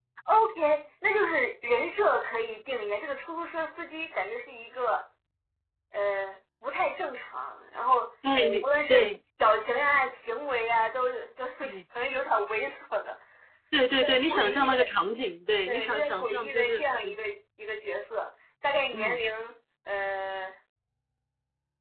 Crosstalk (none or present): present